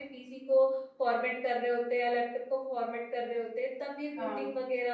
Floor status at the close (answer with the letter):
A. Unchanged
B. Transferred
A